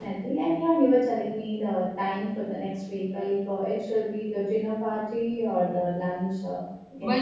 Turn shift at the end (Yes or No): Yes